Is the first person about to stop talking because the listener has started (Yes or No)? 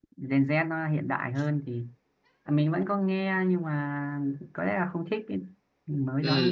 Yes